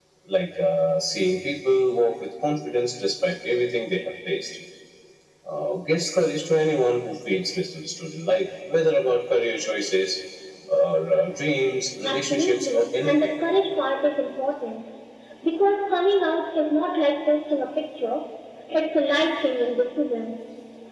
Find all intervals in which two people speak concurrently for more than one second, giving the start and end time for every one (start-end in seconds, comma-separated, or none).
12.0-13.4